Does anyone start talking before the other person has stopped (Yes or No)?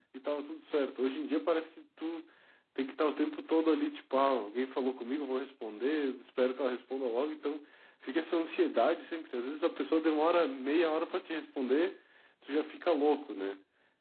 No